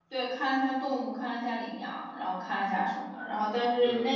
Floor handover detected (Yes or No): No